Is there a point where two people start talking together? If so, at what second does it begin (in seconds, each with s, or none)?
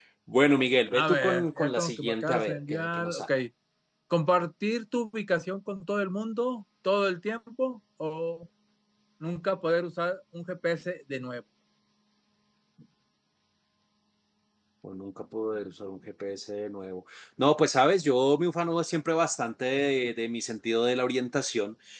0.9 s